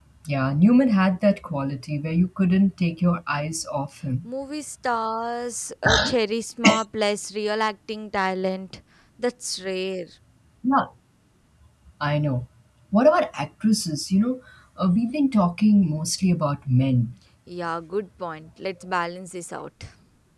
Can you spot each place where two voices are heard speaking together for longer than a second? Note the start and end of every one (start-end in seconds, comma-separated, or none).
none